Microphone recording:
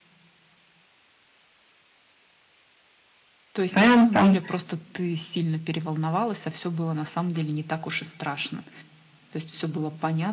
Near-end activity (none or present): present